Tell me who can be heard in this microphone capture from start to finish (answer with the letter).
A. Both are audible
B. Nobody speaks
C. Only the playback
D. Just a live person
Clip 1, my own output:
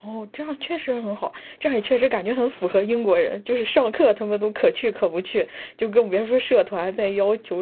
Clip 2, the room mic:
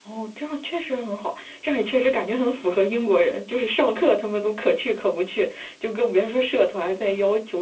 C